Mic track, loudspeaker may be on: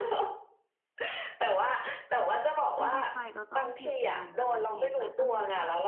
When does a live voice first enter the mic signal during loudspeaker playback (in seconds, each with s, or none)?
2.8 s